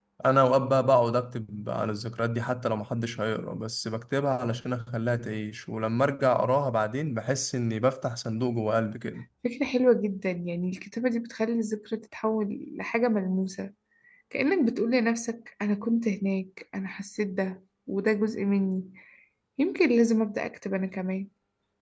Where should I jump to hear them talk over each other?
none

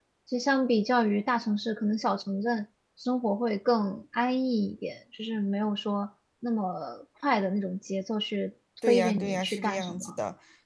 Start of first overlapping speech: 8.8 s

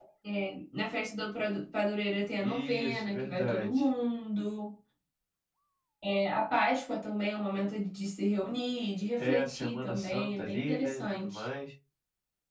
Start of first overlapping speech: 2.4 s

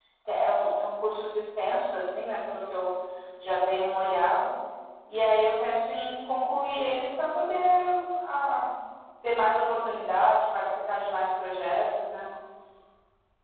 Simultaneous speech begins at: none

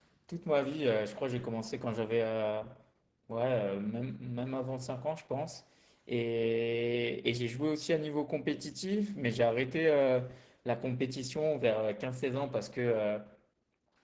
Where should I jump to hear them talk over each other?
none

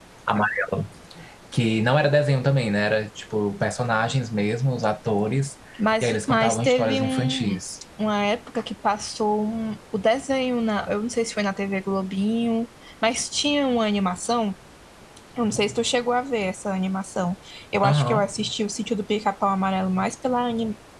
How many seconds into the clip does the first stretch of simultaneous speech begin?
6.0 s

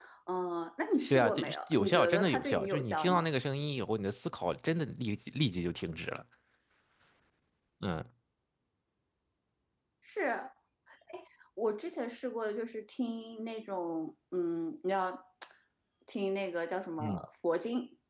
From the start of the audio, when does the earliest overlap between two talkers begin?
1.1 s

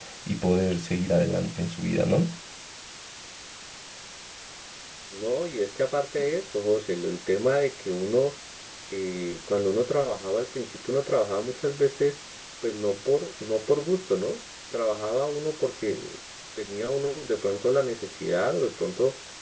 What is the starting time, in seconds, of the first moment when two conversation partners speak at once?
none

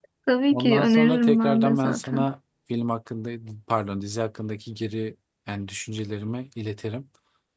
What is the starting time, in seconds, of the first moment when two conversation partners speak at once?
0.5 s

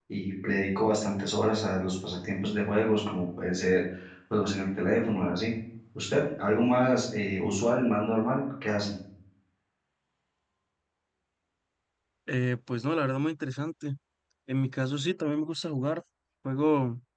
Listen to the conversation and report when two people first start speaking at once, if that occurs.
none

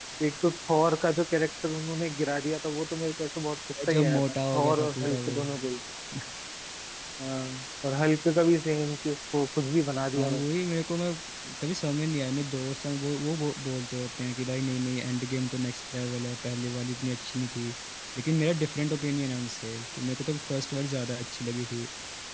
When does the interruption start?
3.9 s

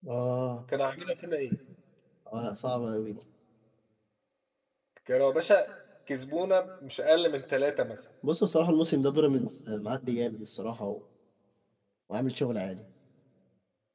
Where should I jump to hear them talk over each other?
none

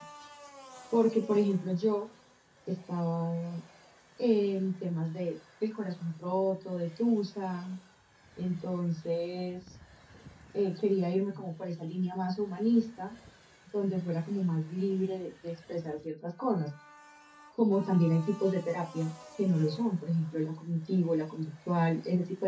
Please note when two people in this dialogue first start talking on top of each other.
none

